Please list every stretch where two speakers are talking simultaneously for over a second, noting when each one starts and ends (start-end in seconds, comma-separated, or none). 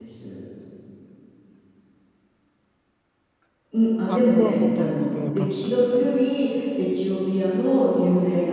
4.1-6.0